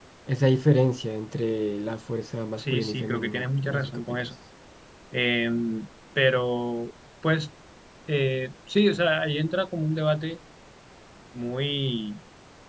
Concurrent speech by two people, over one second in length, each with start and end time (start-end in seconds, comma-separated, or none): 2.6-4.3